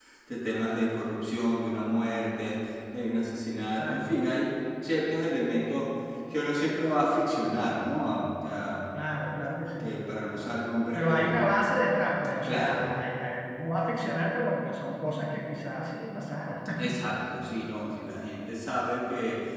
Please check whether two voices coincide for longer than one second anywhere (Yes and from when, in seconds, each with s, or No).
No